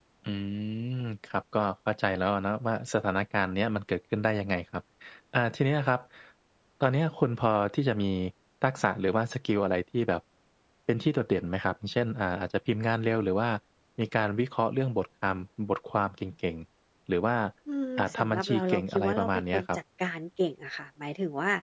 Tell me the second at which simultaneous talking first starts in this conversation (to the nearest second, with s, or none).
18 s